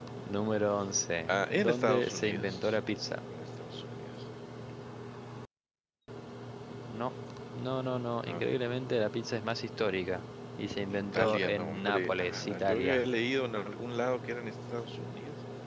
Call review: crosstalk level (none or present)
present